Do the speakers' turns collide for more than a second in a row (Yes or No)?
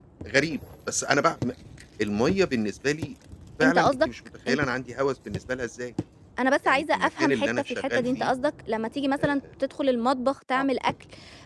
Yes